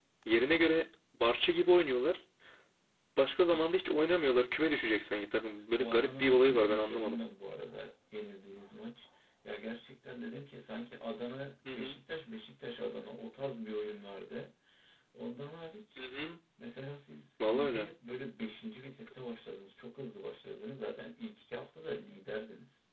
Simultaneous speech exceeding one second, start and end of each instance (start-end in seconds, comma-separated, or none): 5.8-7.2